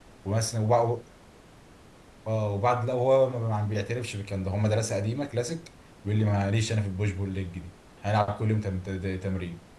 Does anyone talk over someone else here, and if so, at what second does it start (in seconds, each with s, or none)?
none